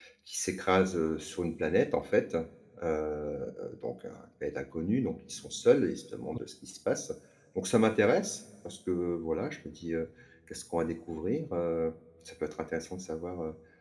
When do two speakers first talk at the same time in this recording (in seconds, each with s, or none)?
none